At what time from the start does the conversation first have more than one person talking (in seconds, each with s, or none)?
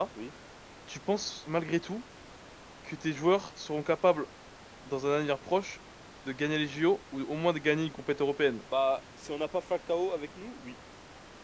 none